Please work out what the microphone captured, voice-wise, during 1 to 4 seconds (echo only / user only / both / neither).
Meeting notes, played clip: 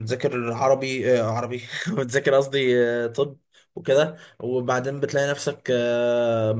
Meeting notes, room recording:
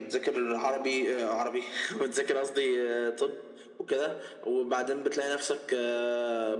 echo only